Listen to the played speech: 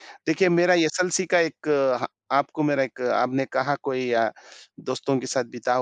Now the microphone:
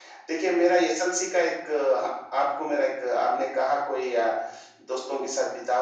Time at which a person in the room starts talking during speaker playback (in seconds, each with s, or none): none